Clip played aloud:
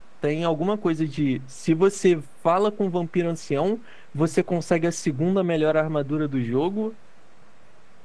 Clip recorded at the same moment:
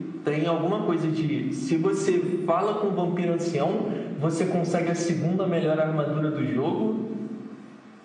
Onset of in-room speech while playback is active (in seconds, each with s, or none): none